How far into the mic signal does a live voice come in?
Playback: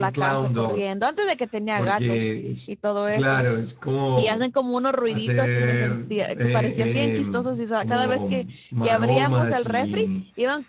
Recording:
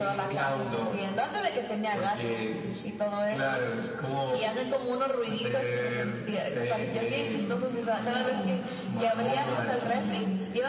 none

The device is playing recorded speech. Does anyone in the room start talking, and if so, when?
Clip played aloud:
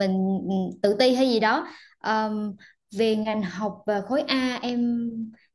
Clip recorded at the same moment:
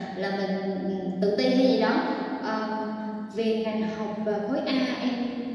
none

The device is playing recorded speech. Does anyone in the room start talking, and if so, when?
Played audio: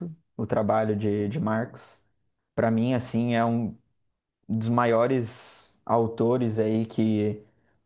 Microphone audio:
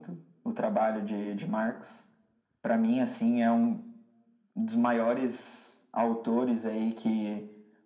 none

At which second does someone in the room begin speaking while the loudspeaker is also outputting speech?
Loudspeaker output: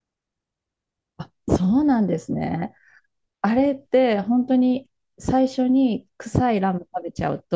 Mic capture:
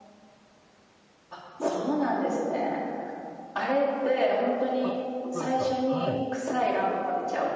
4.8 s

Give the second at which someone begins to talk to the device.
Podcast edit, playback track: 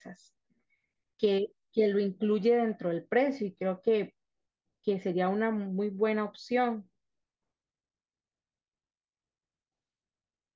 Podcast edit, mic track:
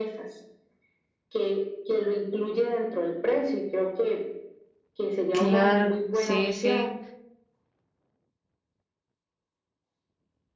5.3 s

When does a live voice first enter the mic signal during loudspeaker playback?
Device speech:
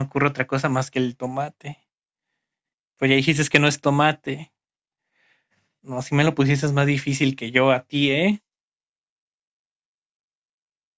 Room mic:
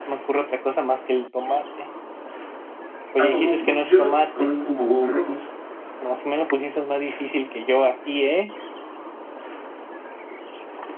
3.2 s

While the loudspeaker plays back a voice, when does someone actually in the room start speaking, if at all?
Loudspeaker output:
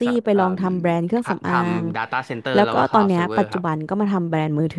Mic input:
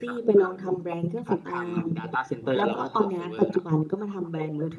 none

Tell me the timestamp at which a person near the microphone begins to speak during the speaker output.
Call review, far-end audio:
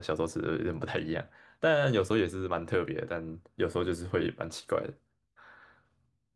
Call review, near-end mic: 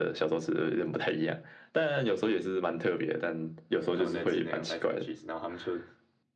3.9 s

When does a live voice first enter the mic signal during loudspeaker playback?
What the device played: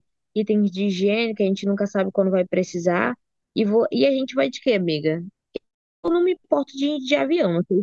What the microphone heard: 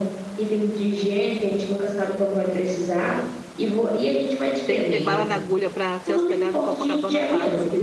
4.6 s

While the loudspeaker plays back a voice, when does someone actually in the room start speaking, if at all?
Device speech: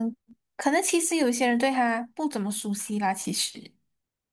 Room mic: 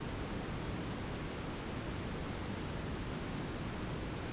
none

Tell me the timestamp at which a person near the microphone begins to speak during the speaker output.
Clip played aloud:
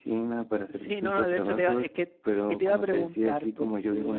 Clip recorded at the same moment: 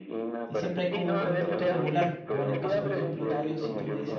0.5 s

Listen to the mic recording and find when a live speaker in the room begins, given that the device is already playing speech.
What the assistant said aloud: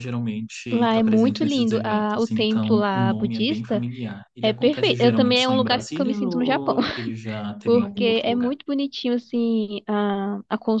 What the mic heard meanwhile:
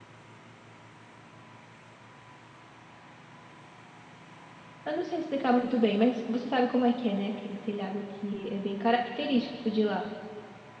4.8 s

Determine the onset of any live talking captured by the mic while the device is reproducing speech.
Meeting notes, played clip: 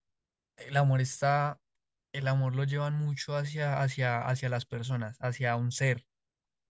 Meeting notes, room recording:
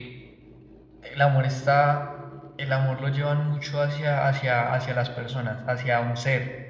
none

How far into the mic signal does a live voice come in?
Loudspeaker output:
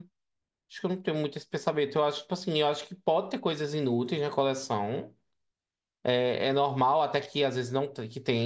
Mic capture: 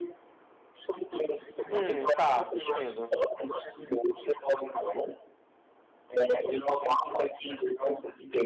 1.7 s

